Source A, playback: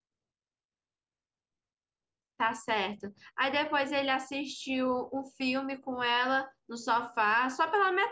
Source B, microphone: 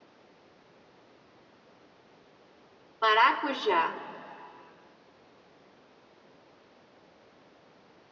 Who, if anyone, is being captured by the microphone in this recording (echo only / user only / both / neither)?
user only